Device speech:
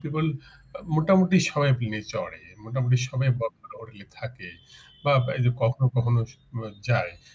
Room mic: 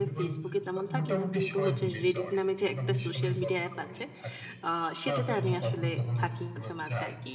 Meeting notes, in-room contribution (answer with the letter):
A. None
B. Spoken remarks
B